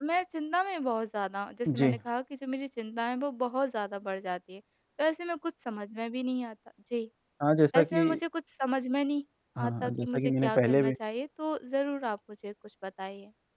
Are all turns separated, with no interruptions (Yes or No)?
No